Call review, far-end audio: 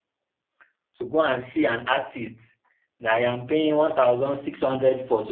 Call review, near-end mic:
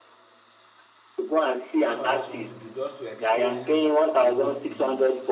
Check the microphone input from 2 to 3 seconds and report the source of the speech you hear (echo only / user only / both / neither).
both